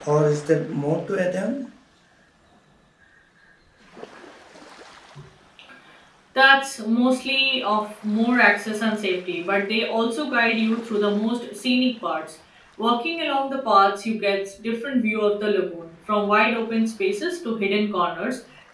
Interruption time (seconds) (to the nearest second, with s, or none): none